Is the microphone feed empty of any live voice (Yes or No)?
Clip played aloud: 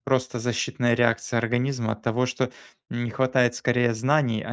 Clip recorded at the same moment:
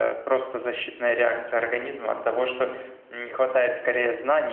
Yes